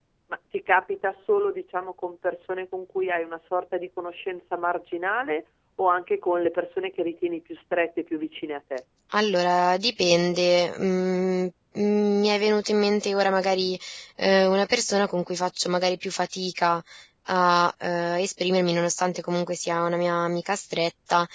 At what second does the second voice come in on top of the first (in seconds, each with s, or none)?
none